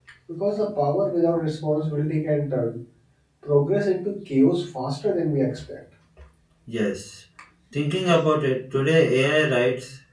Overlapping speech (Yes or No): No